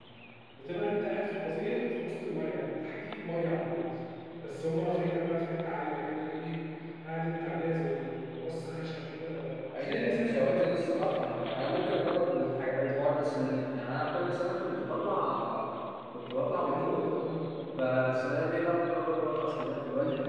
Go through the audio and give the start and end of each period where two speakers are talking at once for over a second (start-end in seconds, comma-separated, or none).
9.8-11.2